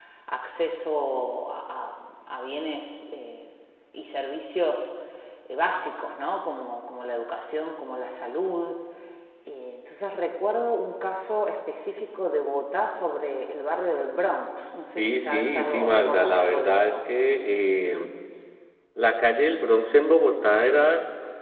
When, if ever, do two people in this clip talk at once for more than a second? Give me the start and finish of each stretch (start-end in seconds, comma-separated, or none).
15.0-16.9